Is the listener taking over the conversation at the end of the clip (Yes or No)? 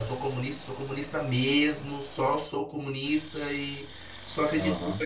No